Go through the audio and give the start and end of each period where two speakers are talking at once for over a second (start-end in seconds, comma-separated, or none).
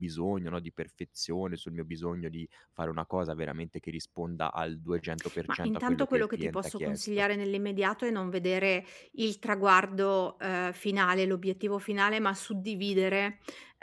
5.5-7.1